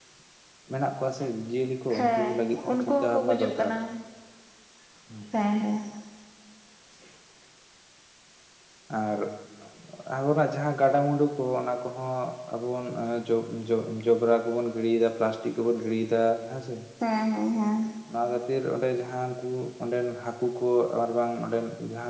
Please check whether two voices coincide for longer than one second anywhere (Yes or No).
Yes